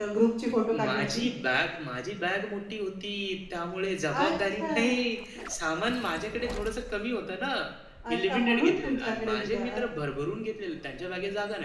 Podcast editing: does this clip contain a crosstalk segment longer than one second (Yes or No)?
Yes